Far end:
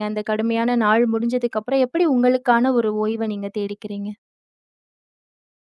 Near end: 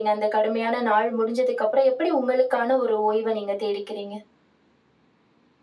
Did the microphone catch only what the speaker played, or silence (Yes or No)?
Yes